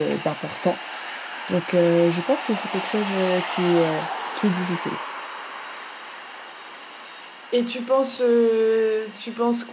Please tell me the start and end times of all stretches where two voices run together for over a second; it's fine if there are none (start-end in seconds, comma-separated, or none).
none